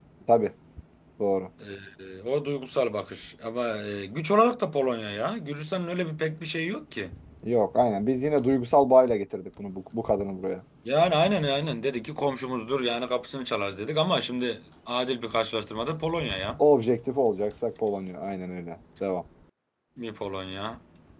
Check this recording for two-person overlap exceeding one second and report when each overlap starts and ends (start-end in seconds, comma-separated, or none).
none